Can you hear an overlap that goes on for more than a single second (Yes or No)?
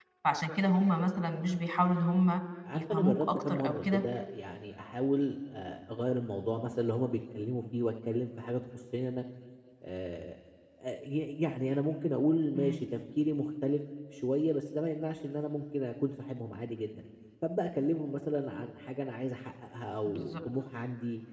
Yes